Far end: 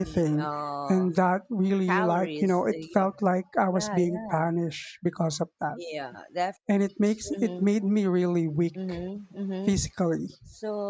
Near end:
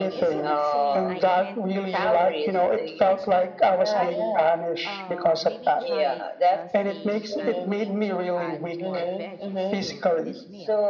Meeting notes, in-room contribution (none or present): present